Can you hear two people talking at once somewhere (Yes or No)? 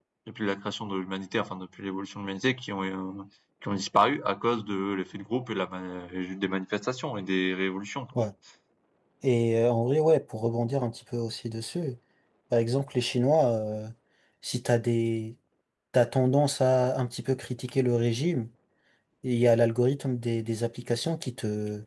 No